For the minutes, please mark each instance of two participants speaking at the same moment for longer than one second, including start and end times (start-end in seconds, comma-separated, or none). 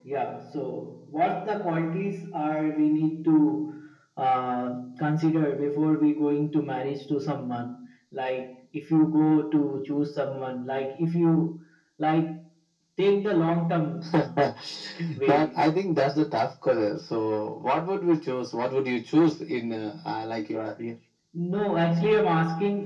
none